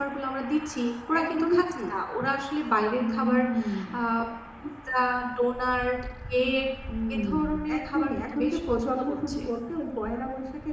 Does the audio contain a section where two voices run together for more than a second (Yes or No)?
Yes